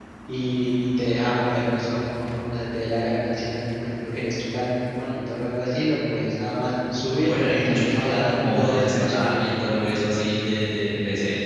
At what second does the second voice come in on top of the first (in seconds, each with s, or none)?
7.2 s